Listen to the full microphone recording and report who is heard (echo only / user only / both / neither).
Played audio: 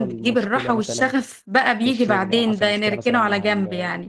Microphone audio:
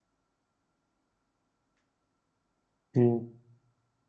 user only